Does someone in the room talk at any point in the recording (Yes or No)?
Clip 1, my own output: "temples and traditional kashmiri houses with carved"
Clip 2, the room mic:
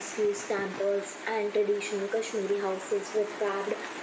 No